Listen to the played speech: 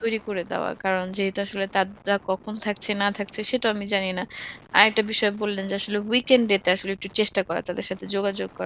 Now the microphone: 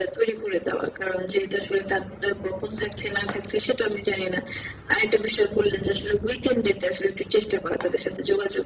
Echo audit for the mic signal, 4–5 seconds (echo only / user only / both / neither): echo only